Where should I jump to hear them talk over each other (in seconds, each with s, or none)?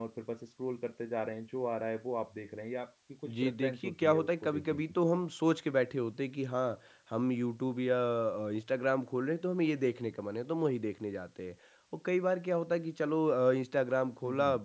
3.3 s